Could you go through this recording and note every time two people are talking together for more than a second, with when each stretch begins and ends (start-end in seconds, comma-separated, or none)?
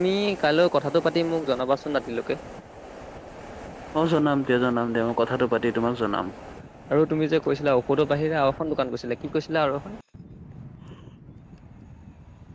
none